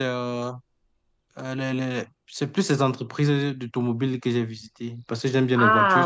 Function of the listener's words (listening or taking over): taking over